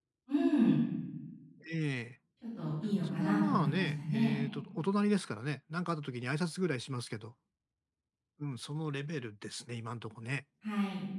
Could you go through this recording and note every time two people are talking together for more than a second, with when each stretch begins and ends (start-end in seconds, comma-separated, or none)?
3.0-4.3